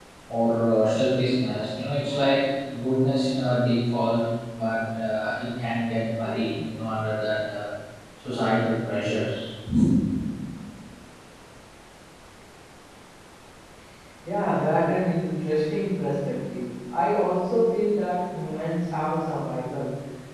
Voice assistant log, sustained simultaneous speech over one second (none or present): none